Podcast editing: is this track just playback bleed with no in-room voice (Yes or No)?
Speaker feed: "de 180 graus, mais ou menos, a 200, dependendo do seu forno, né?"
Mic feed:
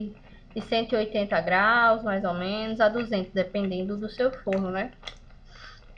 Yes